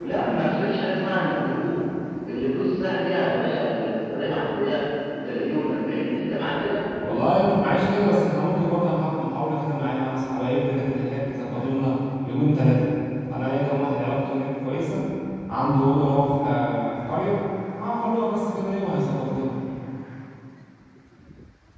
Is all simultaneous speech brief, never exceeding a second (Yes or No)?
Yes